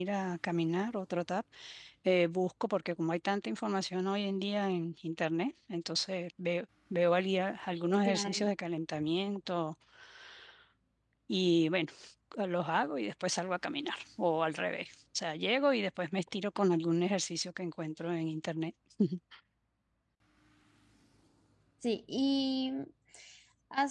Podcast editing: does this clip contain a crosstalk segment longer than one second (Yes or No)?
No